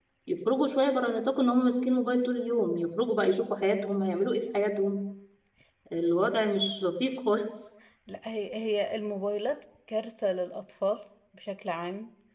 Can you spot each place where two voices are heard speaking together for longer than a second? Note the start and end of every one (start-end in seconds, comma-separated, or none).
none